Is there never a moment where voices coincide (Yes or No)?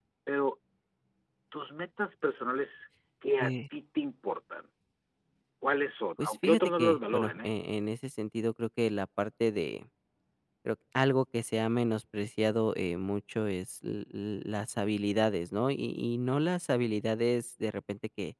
No